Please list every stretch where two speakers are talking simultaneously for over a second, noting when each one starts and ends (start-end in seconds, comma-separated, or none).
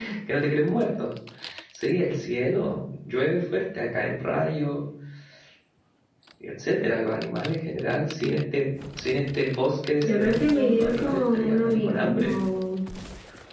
10.0-12.3